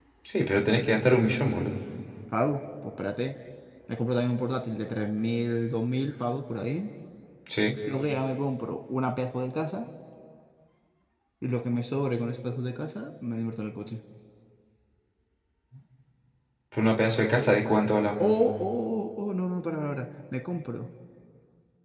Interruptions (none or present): none